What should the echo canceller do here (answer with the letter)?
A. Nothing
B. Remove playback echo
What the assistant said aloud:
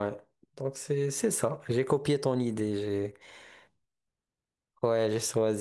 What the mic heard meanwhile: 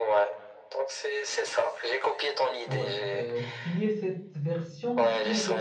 B